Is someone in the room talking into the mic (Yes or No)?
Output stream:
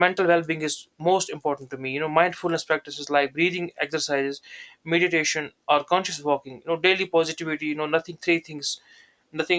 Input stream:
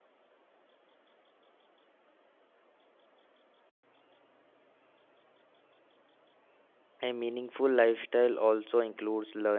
Yes